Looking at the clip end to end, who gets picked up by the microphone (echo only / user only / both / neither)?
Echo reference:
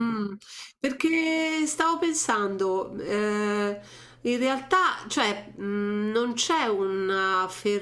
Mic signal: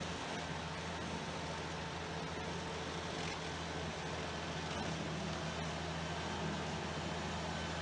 neither